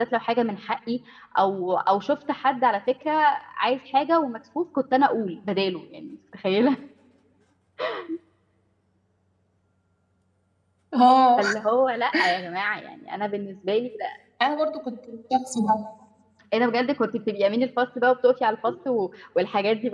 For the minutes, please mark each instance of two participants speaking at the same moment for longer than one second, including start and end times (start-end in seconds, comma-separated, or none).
none